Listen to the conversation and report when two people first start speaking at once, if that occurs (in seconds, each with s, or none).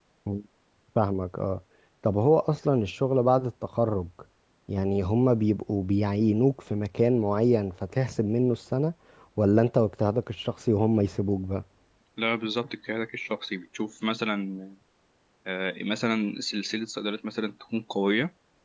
none